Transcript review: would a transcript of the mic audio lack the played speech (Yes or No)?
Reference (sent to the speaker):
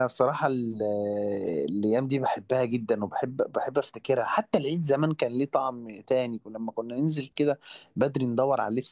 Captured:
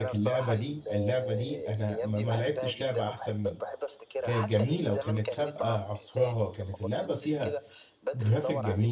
No